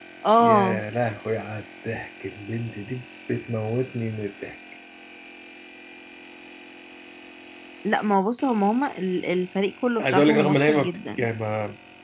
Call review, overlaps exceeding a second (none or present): present